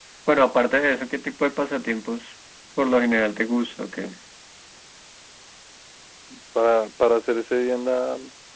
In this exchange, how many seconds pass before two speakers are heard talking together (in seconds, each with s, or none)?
none